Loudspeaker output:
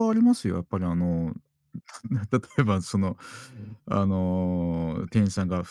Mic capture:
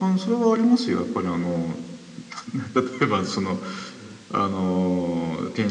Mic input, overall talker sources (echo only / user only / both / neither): echo only